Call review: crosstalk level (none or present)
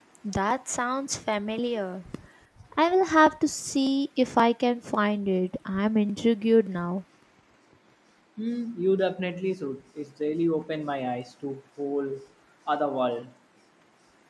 none